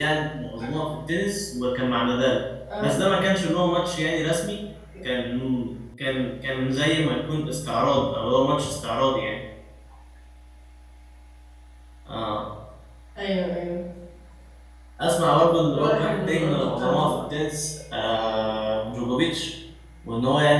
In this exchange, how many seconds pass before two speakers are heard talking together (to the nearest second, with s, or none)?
16 s